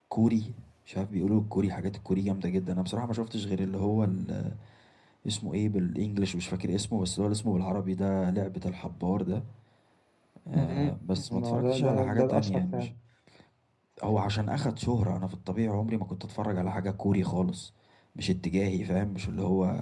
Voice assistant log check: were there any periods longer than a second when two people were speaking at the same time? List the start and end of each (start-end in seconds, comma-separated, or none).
11.4-12.9